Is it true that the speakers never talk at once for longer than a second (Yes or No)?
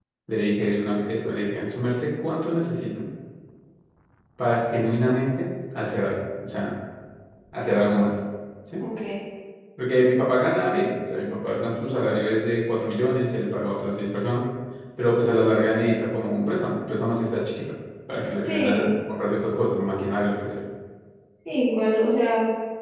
Yes